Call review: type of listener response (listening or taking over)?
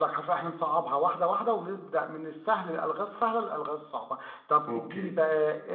listening